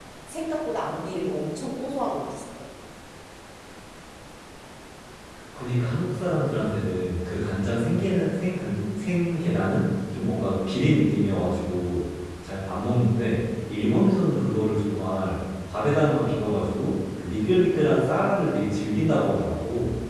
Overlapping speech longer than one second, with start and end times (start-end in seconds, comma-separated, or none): none